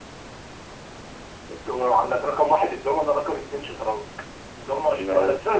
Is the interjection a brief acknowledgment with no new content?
Yes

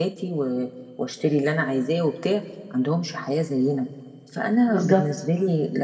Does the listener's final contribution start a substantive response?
No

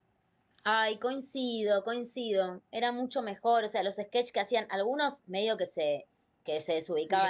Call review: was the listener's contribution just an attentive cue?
Yes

